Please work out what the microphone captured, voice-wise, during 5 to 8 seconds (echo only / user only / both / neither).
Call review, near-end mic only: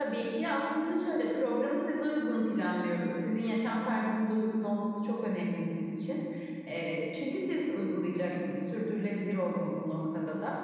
user only